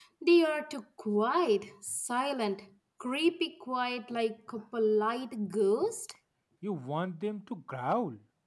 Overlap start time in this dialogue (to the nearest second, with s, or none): none